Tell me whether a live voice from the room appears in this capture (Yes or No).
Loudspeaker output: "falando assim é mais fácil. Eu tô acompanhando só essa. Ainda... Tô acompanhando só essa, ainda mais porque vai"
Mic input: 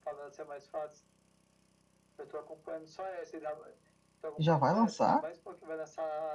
Yes